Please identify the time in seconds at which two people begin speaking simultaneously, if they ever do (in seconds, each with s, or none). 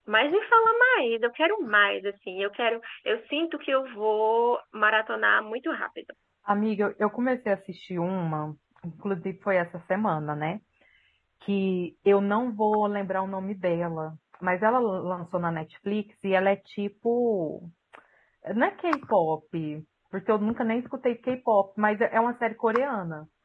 none